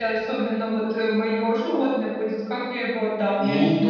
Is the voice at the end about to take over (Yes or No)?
Yes